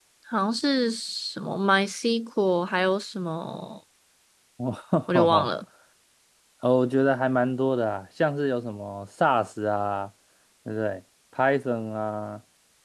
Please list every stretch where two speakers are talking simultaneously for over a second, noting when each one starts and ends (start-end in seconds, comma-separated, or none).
none